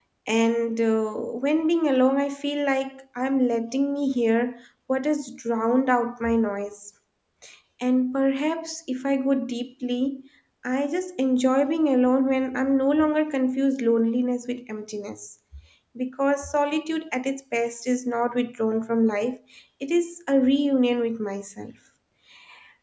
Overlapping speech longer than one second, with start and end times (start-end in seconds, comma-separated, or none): none